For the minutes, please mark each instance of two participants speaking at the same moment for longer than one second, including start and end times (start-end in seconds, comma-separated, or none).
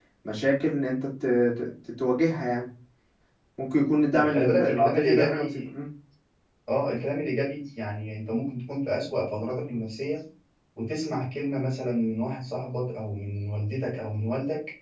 4.2-5.6